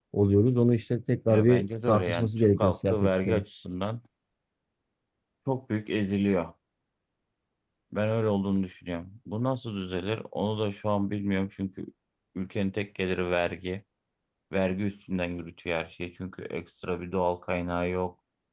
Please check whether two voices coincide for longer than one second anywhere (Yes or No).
Yes